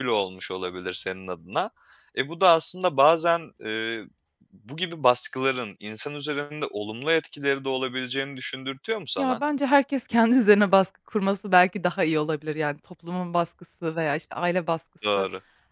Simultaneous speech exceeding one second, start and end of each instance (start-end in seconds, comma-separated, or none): none